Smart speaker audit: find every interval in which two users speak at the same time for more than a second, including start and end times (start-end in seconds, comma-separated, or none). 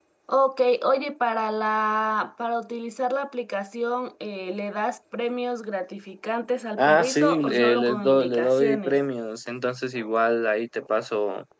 6.8-9.0